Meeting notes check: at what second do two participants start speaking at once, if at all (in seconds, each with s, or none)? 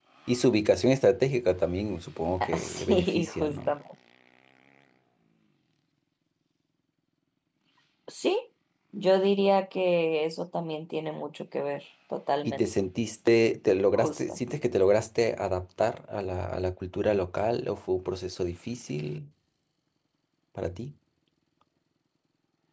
2.4 s